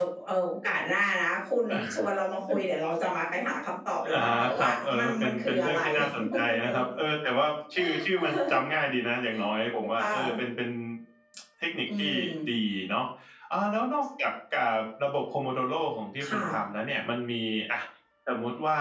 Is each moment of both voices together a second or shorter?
No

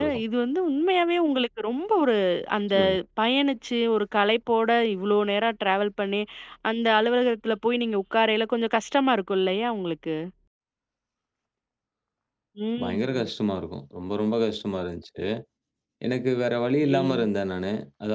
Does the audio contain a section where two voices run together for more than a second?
No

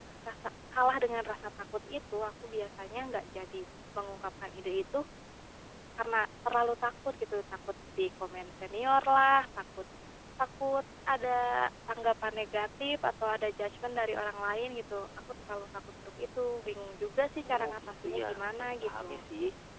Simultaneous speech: Yes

